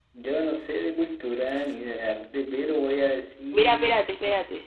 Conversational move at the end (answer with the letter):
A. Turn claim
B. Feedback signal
A